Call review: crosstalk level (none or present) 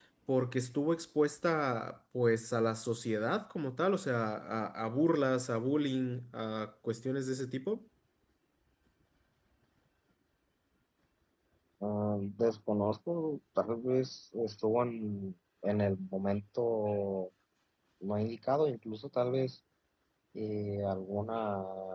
none